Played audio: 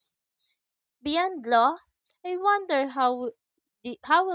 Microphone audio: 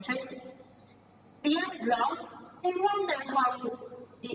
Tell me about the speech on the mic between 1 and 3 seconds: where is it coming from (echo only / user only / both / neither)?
echo only